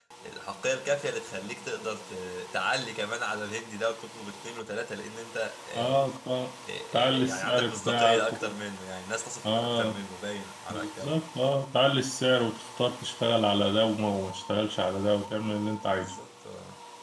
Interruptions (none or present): present